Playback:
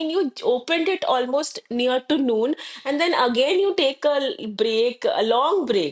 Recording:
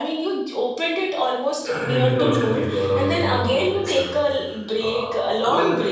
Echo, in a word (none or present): present